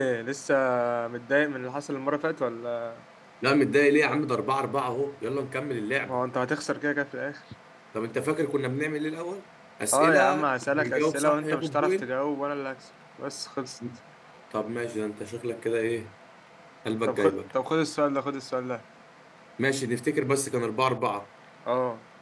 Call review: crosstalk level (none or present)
present